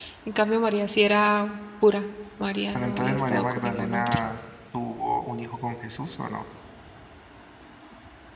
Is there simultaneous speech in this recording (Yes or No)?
Yes